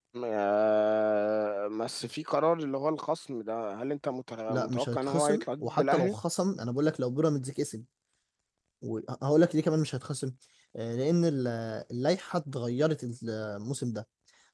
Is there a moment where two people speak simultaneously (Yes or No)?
Yes